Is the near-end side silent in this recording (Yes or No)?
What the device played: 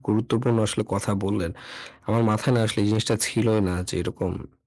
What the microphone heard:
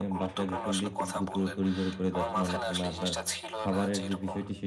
No